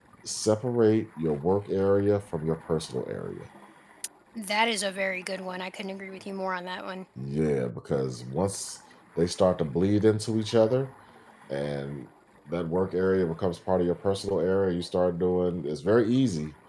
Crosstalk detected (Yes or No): No